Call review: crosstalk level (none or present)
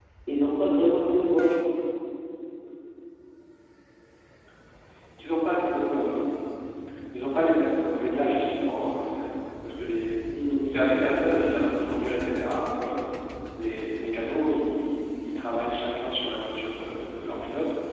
none